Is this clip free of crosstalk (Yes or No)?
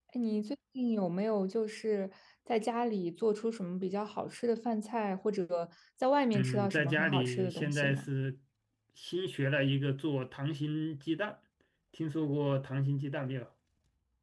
No